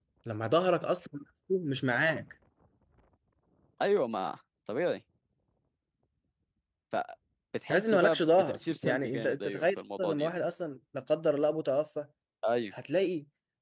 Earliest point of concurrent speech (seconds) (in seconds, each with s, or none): 7.7 s